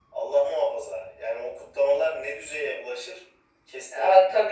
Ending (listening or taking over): taking over